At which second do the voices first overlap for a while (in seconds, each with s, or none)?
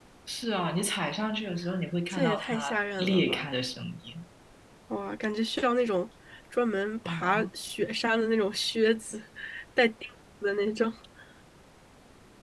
2.1 s